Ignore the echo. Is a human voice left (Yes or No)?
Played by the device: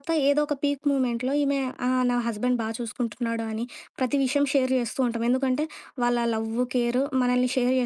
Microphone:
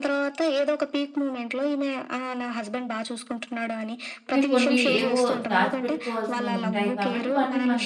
Yes